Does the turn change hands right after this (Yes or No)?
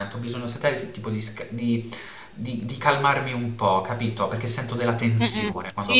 Yes